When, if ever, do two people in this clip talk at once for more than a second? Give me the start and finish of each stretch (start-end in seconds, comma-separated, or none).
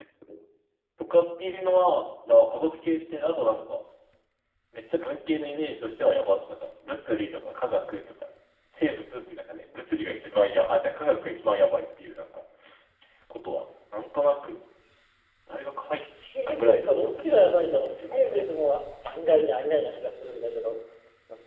16.5-18.4